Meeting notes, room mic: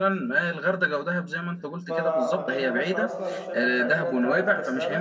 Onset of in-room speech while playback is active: 2 s

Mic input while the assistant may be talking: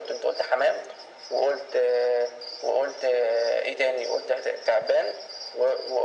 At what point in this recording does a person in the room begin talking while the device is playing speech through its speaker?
none

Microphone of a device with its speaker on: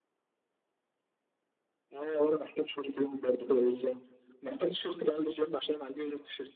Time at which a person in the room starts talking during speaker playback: none

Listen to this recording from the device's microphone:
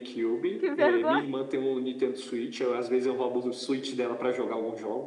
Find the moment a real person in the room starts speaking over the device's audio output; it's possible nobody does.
1 s

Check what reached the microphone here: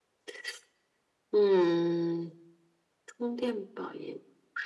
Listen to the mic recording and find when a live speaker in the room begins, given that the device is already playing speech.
none

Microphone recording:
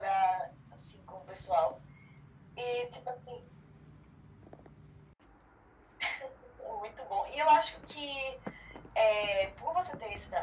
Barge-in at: none

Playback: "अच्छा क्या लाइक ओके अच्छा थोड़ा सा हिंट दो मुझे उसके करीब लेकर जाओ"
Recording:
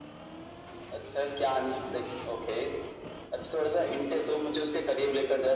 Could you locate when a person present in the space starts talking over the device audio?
none

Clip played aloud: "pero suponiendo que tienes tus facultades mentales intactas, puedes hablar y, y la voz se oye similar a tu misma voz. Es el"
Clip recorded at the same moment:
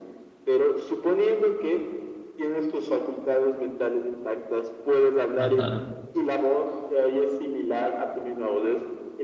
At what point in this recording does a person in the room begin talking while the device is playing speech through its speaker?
5 s

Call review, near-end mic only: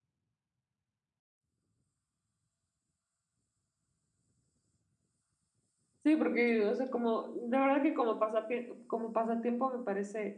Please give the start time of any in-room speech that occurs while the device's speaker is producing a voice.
6 s

